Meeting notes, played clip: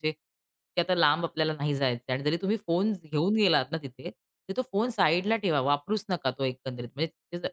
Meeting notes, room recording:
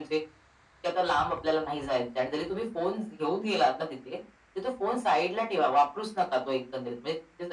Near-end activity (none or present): none